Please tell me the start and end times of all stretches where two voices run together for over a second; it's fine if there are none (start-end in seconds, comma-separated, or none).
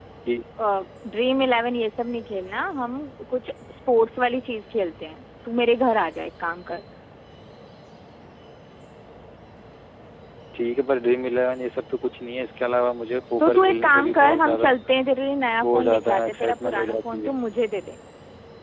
13.4-14.7, 15.6-17.3